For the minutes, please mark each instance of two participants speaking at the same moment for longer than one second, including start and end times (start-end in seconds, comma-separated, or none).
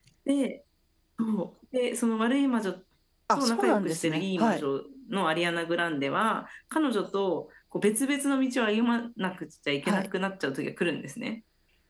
3.4-4.7